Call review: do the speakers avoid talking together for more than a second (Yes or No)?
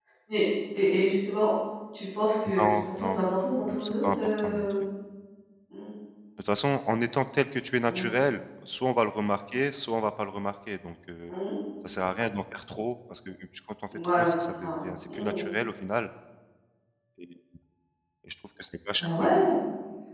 No